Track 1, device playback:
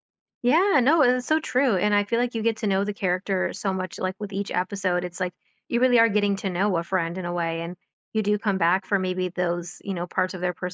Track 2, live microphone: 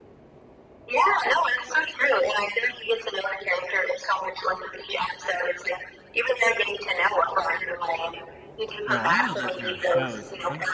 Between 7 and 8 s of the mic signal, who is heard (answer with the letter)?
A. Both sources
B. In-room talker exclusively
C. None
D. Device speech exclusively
D